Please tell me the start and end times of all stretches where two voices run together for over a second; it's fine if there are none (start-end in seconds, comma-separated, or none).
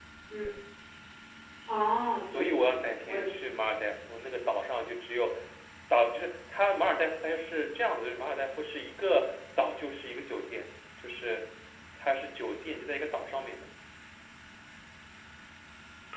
2.2-3.4